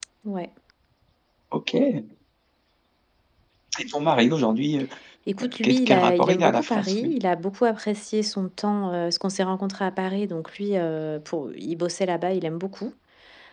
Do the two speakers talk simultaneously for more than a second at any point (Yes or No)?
Yes